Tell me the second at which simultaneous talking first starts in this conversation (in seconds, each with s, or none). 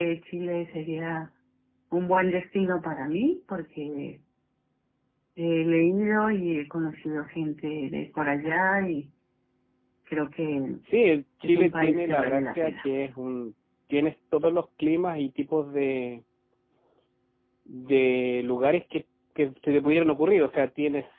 11.4 s